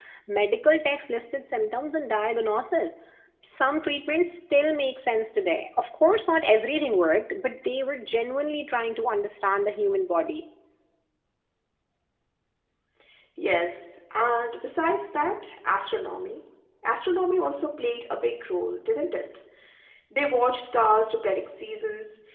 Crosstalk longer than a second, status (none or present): none